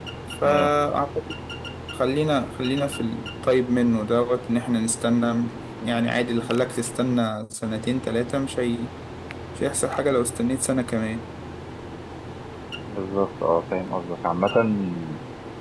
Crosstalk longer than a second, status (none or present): none